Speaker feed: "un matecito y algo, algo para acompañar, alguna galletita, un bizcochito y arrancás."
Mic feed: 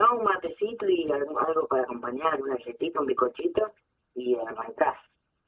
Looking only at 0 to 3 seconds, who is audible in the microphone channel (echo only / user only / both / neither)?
echo only